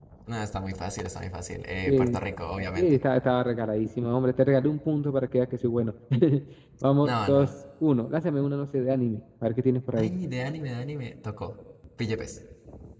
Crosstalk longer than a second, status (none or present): none